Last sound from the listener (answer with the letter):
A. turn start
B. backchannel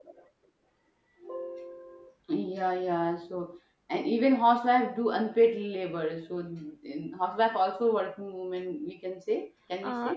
A